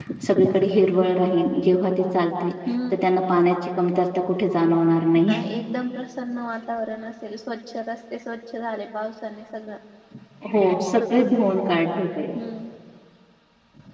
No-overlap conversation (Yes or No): Yes